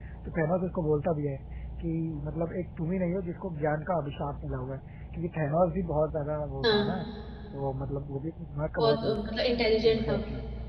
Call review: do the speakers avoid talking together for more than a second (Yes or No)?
Yes